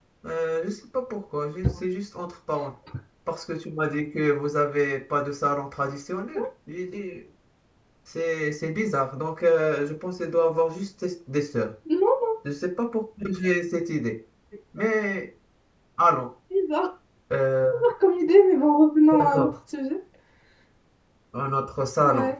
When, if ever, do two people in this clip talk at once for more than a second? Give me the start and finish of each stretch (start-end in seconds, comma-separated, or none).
none